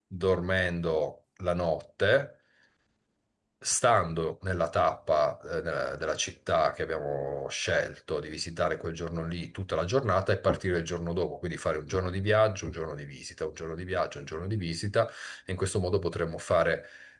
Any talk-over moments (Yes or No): No